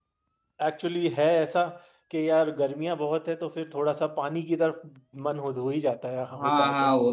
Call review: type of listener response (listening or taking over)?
taking over